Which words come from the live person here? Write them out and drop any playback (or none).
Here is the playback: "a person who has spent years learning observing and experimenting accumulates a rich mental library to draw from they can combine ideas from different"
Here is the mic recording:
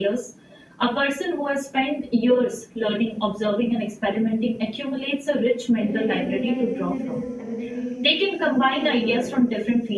like never realizing that this is ability to, you know, tailor it